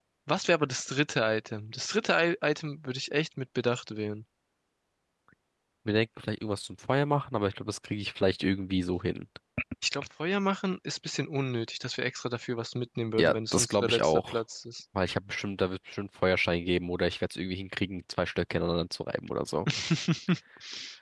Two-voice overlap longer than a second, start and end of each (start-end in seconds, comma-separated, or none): 13.2-14.4